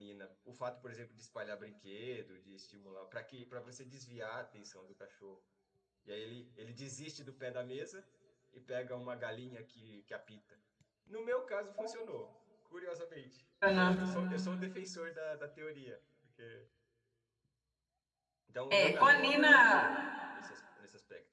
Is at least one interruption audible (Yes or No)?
Yes